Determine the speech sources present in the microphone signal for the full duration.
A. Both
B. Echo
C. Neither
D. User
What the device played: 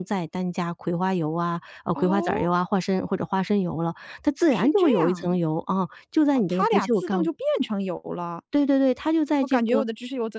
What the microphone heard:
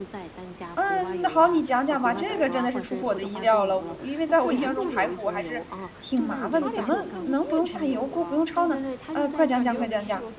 A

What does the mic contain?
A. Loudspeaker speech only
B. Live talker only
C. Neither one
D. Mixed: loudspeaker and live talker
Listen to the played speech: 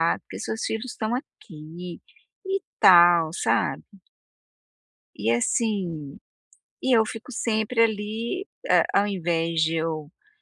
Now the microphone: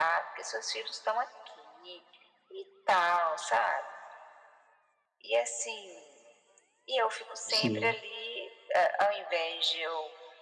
D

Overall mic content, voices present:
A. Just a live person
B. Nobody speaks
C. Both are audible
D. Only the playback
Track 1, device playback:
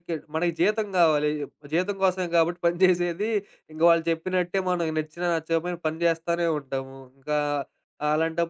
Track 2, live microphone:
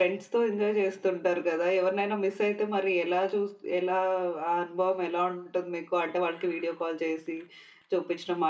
A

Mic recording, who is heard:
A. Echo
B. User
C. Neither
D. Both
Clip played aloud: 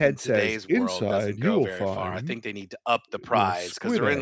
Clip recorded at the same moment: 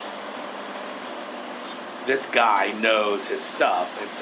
B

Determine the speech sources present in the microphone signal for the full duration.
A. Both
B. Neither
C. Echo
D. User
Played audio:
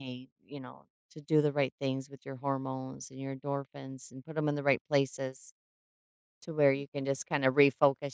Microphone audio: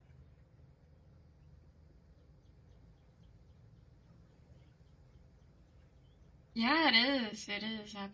D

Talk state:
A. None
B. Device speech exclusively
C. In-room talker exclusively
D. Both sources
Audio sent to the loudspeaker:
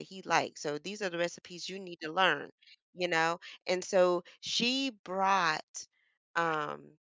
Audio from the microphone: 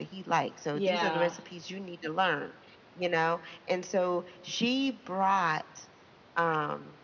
D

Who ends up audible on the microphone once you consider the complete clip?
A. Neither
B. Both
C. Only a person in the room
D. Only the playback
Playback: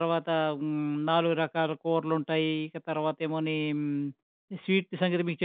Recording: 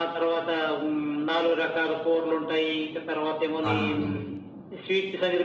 B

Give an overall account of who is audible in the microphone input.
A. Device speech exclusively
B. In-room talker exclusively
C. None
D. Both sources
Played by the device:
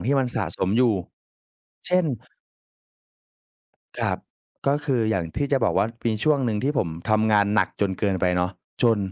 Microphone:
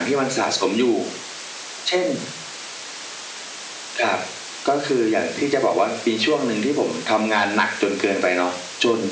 A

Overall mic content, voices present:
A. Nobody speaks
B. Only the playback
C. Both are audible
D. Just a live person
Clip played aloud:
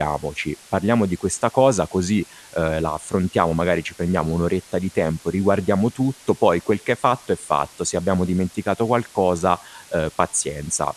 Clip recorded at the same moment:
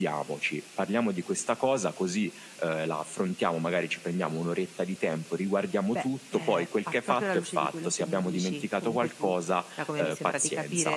C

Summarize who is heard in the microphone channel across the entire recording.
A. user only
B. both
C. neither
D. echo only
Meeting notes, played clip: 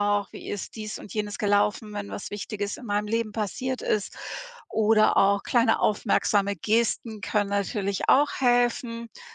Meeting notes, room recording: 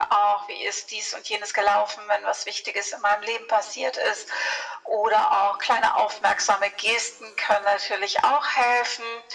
D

